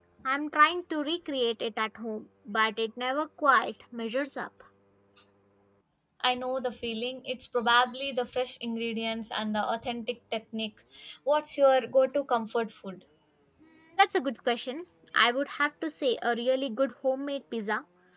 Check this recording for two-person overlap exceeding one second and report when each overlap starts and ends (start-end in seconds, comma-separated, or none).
none